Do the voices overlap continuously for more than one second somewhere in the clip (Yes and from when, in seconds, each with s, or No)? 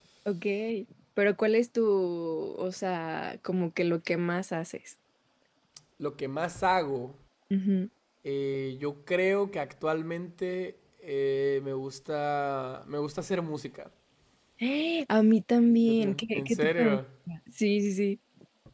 Yes, from 15.7 s